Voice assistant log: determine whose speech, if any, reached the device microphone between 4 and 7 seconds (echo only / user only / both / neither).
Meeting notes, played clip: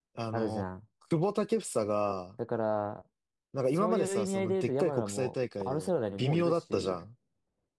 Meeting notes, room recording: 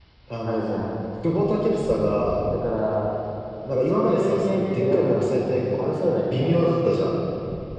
echo only